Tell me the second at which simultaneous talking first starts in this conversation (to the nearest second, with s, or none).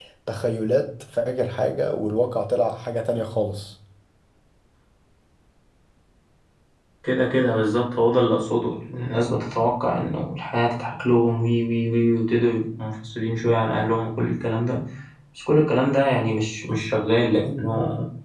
none